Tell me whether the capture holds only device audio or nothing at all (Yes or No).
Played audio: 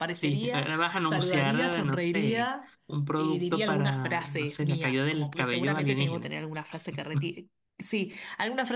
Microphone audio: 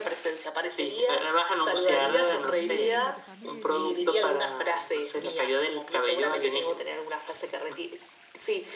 No